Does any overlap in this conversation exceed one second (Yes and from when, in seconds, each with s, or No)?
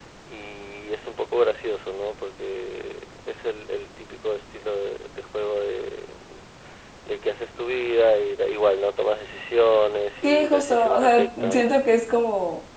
Yes, from 10.2 s